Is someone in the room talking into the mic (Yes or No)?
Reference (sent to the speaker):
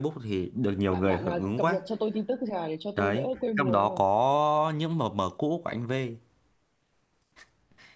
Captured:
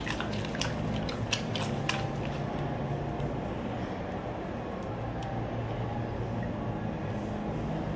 No